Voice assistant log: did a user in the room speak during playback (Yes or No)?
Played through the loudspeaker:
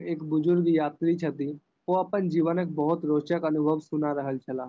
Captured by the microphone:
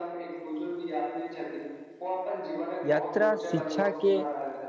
Yes